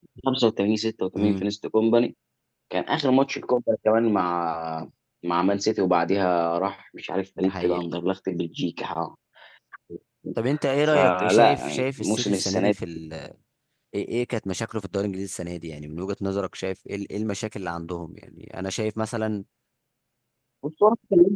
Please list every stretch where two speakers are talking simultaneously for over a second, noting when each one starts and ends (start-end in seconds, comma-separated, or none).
10.9-12.8